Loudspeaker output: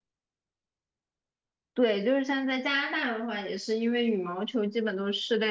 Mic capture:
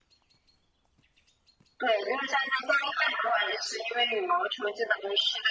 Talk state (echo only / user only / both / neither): echo only